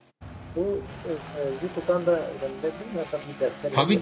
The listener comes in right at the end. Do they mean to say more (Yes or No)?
Yes